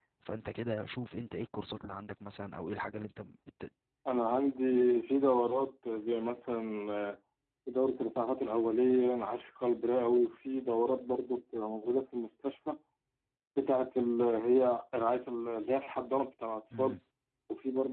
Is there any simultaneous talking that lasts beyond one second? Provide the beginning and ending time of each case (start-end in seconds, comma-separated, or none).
none